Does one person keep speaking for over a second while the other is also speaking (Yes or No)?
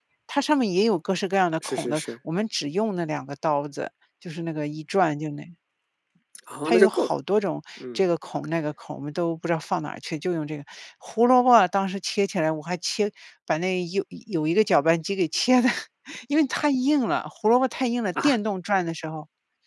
No